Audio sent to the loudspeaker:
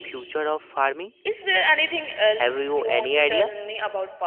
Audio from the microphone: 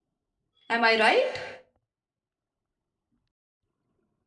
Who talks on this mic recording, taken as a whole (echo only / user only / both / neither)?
user only